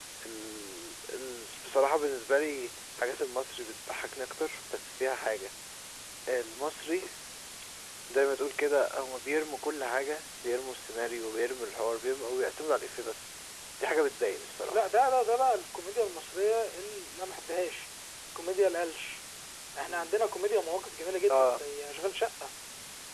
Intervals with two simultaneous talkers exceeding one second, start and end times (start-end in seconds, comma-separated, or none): none